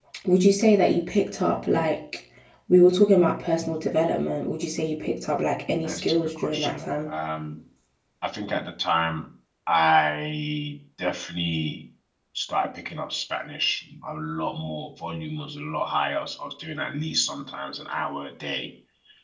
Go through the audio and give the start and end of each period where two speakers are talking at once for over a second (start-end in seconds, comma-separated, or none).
5.8-7.1